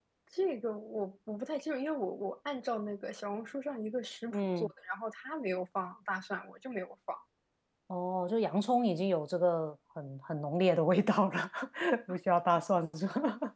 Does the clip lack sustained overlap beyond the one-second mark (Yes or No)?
Yes